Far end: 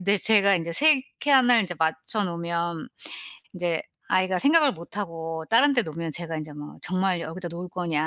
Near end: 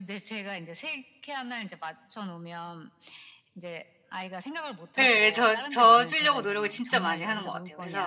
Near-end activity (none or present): present